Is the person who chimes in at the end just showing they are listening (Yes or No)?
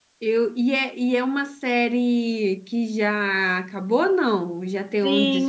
No